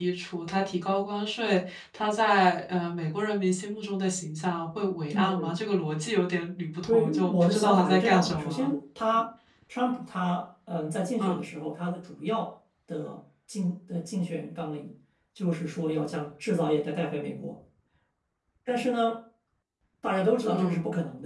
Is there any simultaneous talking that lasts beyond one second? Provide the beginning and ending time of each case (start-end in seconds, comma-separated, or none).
6.9-8.7